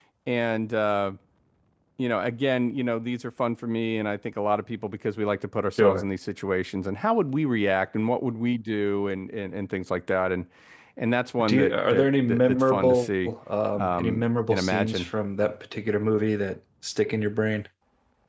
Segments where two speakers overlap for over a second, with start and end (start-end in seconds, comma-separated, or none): 11.4-13.3, 13.8-15.1